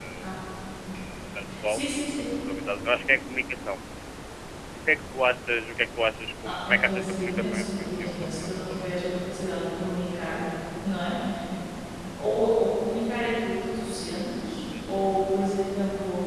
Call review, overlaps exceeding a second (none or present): present